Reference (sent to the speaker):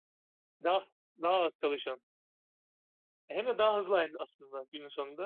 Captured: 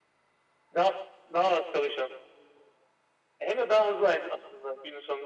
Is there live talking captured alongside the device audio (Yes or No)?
No